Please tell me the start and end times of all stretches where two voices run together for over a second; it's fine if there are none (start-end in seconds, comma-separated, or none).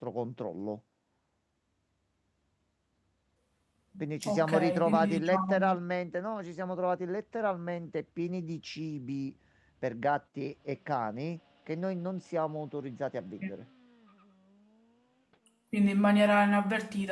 4.2-5.6